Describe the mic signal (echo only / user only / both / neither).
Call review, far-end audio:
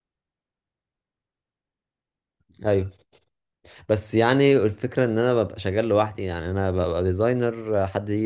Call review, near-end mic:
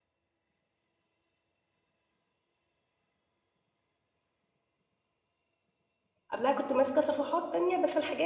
user only